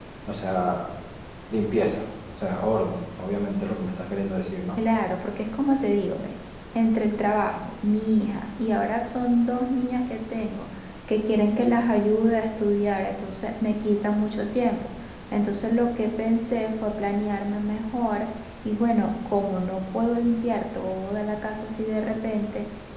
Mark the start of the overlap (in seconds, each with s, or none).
none